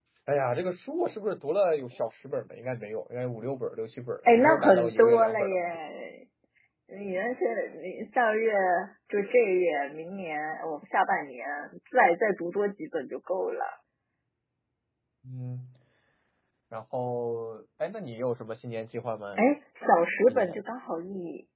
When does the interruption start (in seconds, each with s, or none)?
4.3 s